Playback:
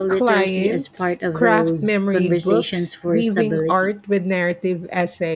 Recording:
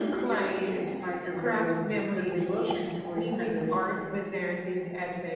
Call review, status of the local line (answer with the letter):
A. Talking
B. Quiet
B